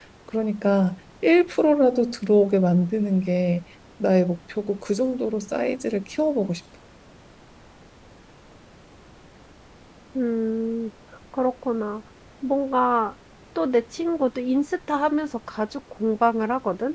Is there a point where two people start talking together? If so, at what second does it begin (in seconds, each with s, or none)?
none